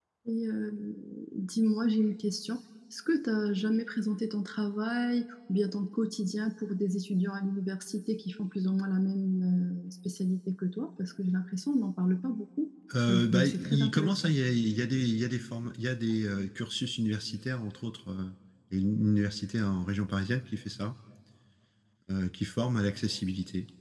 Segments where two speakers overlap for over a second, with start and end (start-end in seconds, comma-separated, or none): 13.1-14.3